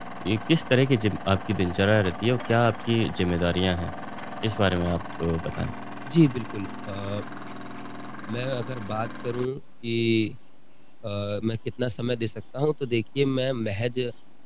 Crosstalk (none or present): none